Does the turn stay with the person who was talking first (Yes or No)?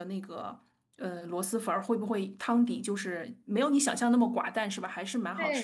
No